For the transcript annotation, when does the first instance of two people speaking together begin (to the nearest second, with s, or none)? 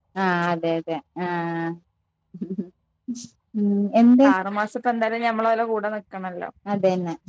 none